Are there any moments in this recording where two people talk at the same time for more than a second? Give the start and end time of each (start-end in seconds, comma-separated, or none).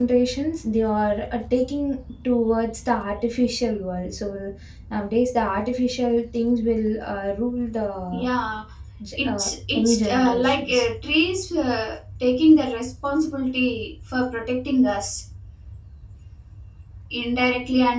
9.2-10.8